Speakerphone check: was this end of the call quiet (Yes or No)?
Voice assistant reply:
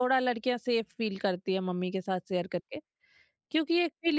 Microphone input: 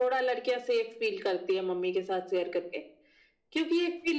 Yes